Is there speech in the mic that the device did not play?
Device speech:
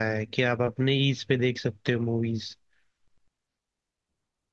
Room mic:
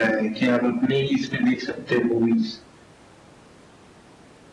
No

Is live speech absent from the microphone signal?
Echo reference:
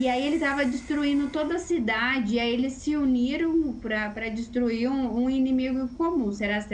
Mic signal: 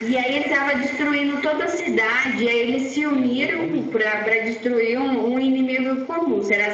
No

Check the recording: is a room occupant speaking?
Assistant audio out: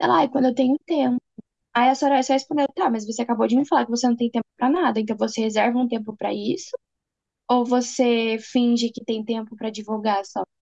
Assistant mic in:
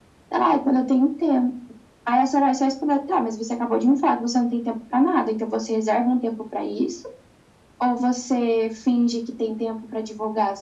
No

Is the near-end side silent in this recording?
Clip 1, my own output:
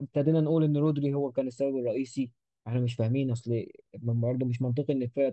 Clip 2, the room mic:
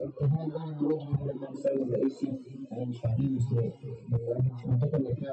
Yes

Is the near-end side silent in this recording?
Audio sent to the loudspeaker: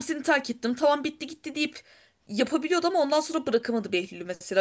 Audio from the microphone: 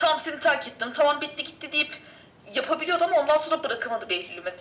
Yes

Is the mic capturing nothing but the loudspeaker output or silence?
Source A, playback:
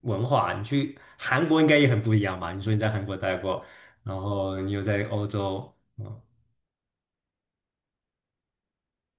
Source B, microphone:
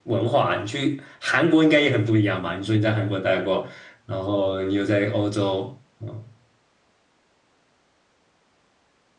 Yes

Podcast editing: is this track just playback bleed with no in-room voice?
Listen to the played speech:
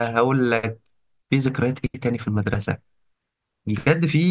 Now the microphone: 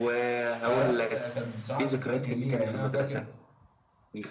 No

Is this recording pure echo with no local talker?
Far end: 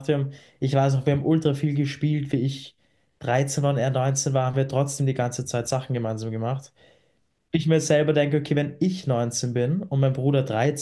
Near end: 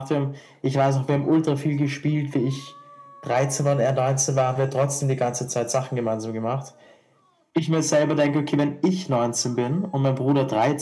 Yes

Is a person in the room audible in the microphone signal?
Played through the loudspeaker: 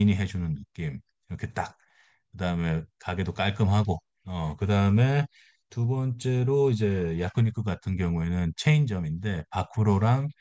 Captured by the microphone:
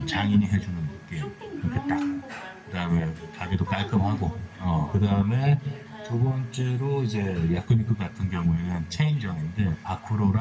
Yes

